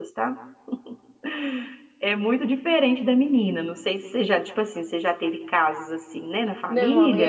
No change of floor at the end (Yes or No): No